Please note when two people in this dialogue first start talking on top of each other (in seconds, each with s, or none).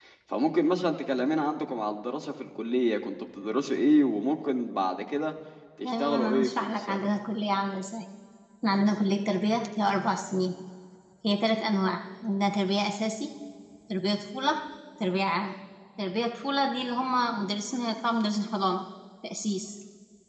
5.8 s